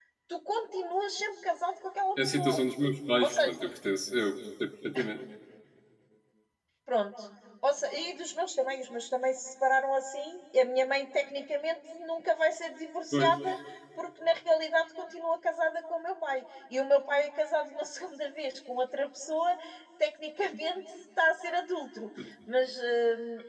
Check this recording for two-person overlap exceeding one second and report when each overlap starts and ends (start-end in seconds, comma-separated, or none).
none